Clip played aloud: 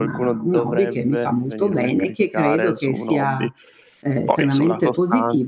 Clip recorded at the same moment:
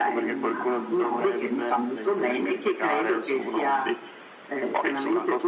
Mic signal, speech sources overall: echo only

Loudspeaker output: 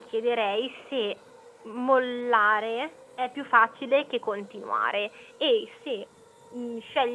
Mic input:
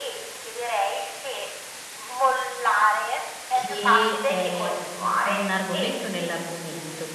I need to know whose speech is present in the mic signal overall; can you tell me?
both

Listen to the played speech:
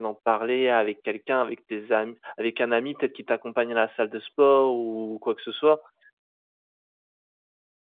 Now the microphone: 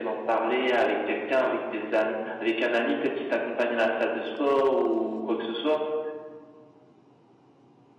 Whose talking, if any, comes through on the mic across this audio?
echo only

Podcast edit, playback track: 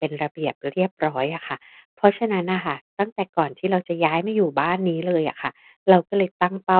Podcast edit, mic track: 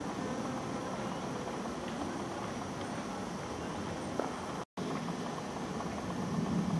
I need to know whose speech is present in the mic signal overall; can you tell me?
neither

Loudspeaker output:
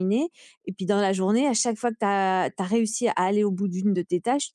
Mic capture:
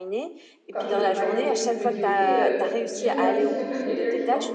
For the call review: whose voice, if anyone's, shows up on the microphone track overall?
both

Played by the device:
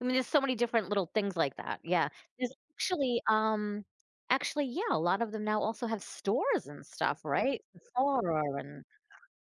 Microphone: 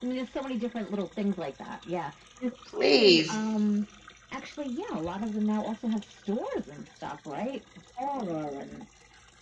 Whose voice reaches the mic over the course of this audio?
both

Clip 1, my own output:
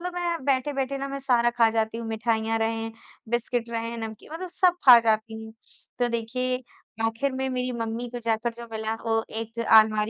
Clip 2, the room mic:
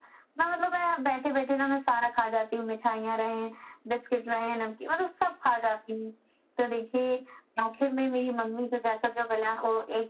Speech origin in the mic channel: echo only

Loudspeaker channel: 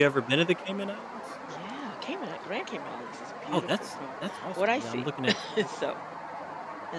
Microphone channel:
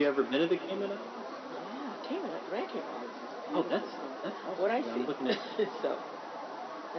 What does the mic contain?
echo only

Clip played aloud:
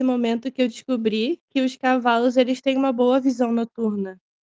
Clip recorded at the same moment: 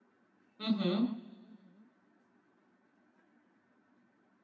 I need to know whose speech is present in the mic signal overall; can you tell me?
user only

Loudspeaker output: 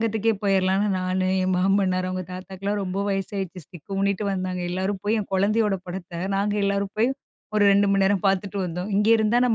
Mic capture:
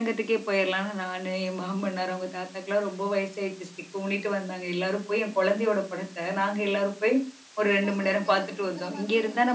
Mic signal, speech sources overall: both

